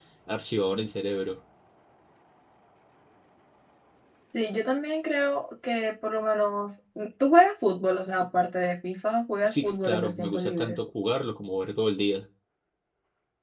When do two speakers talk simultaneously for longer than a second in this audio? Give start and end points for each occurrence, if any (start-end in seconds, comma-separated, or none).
9.4-10.8